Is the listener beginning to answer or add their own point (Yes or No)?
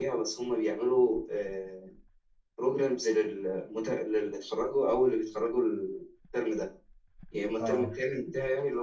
No